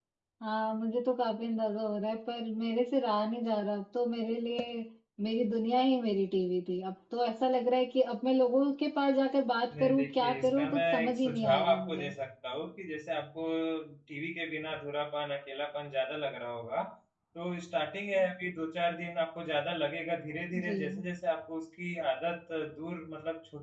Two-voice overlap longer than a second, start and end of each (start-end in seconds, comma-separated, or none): 9.7-12.1